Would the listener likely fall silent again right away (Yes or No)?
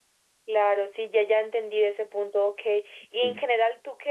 Yes